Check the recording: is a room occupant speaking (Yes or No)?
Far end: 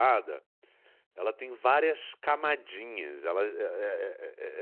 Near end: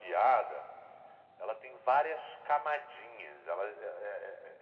No